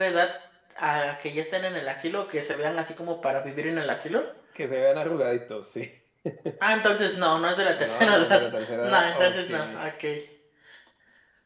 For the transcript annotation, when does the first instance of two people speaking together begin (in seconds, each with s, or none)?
7.7 s